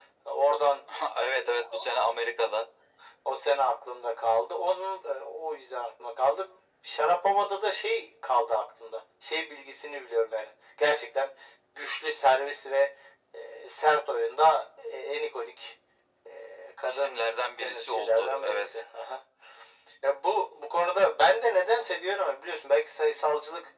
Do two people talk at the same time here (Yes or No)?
Yes